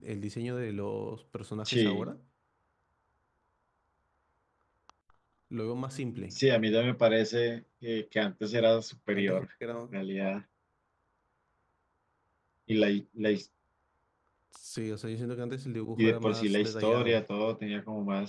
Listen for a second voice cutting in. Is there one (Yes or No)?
Yes